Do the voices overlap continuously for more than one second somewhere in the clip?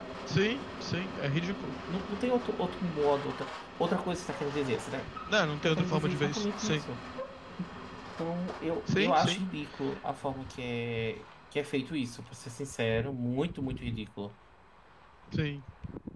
Yes, from 5.6 s

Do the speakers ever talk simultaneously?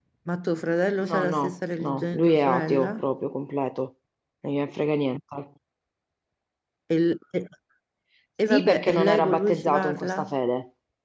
Yes, from 1.1 s

